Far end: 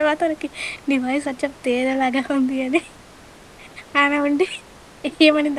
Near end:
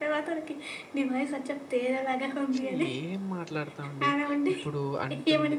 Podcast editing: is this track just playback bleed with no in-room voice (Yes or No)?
No